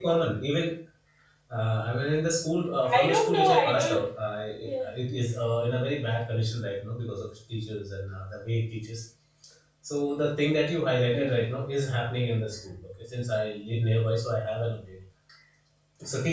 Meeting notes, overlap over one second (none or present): present